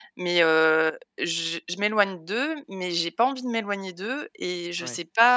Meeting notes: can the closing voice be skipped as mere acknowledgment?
Yes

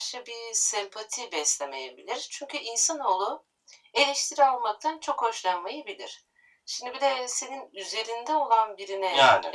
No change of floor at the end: Yes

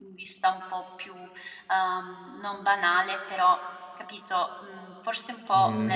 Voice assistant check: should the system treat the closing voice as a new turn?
Yes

